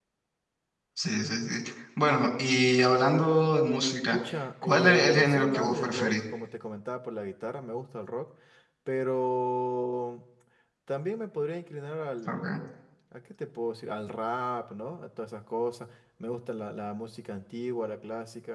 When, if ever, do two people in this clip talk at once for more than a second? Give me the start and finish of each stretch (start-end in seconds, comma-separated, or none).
4.6-6.2